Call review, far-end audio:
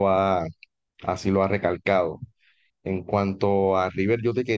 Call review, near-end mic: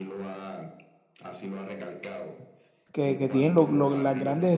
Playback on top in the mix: No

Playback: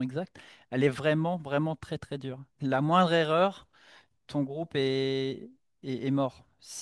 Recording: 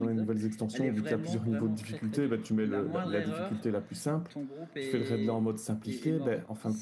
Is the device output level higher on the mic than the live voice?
No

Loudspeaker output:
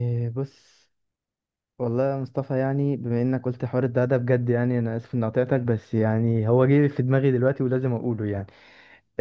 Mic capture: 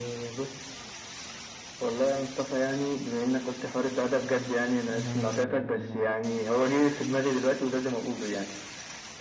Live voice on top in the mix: No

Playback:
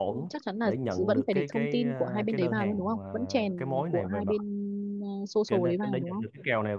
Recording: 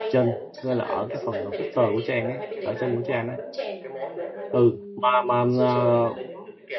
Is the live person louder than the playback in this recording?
Yes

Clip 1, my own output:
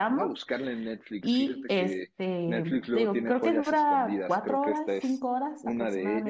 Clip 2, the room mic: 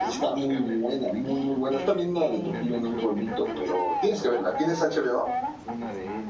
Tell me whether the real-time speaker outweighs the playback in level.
Yes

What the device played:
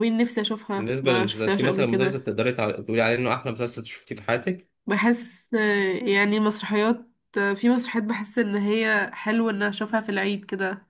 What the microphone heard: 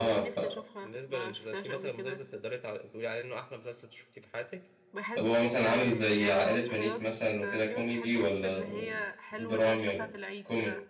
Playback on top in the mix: No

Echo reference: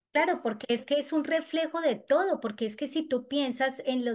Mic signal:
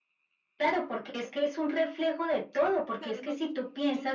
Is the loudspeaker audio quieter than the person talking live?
No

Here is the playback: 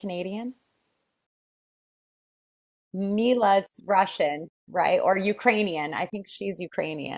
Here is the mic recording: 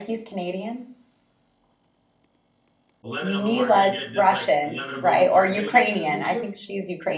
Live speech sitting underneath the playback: Yes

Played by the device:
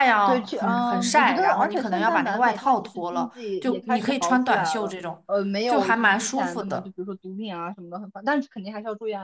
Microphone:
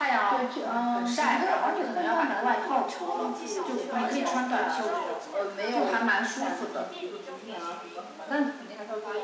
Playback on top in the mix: Yes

